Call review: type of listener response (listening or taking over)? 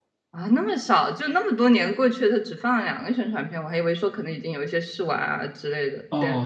taking over